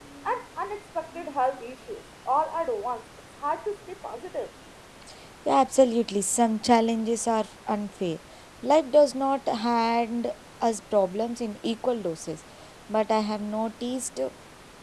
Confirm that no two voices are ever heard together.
Yes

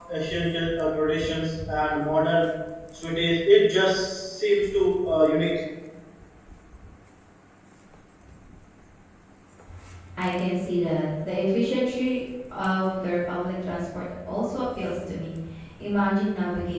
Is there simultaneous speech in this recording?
No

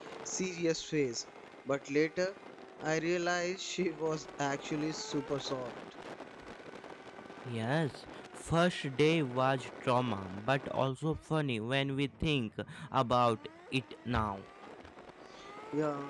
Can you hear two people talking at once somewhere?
No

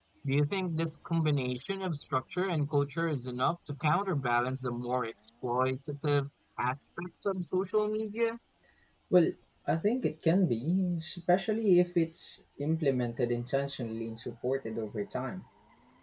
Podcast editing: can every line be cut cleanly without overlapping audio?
Yes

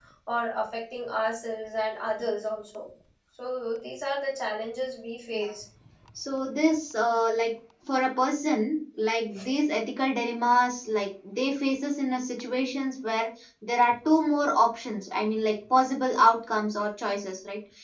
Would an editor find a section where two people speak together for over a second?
No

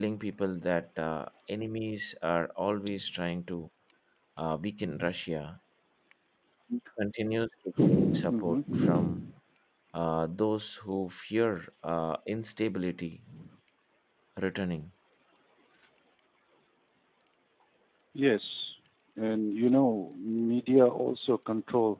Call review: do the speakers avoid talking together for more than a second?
No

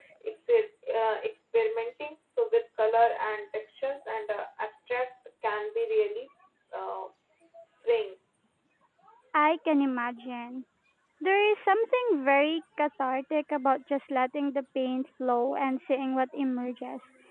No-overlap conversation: Yes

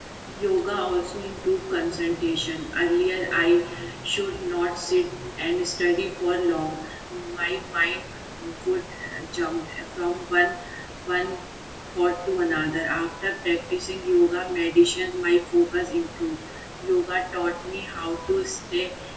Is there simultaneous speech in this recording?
No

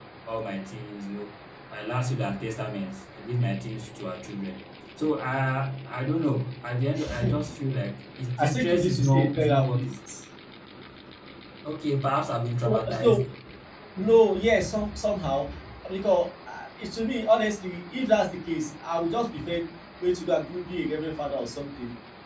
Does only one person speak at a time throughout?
No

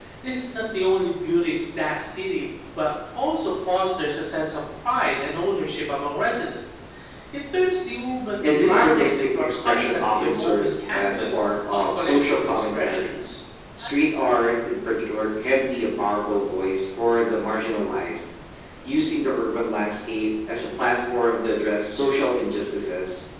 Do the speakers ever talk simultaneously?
Yes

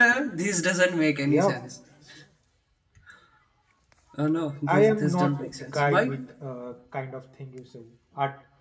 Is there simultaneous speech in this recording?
Yes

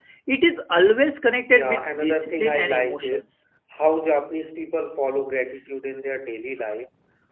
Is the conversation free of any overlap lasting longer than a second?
No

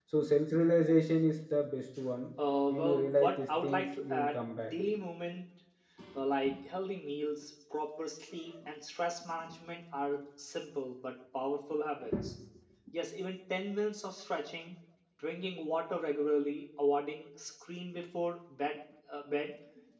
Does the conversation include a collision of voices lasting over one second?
Yes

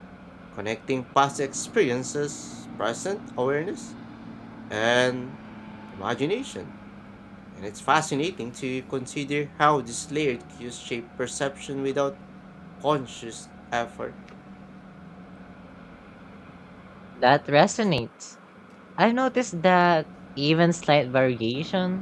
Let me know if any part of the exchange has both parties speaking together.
No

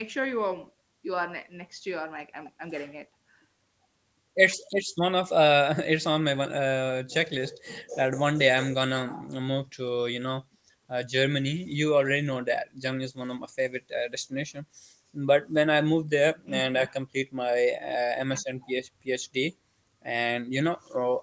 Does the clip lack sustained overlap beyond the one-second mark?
Yes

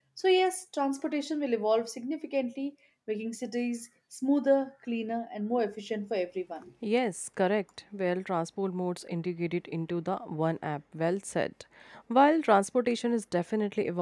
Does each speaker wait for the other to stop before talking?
Yes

